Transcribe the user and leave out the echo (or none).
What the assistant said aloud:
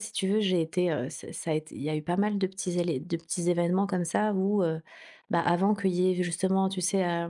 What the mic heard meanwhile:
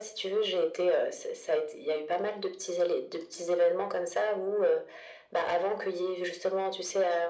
none